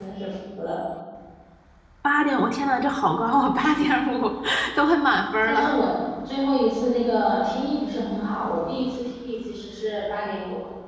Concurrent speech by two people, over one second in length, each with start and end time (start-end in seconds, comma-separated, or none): none